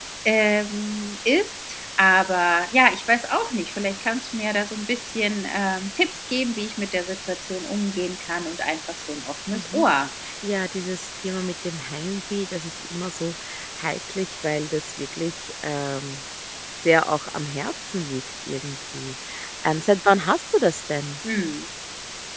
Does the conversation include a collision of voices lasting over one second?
No

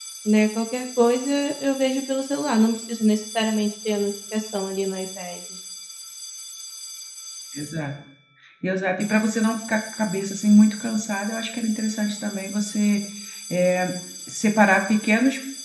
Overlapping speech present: No

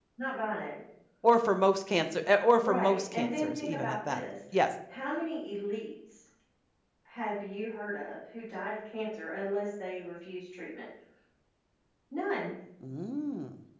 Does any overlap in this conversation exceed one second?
Yes, from 2.6 s

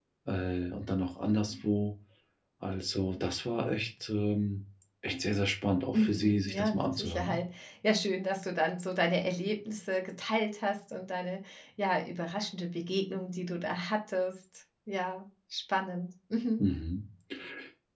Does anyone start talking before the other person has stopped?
Yes, from 5.9 s

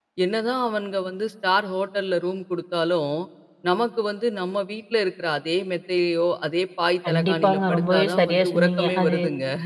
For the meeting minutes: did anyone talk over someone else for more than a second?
Yes, from 7.0 s

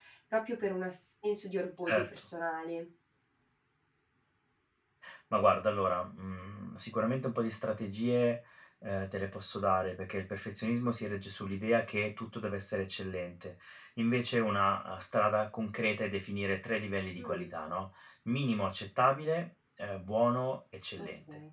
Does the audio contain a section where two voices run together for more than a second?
No

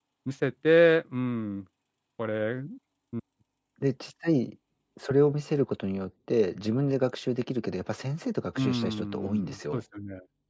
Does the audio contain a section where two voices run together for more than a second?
Yes, from 8.6 s

